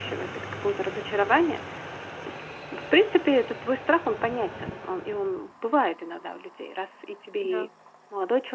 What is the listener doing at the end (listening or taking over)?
listening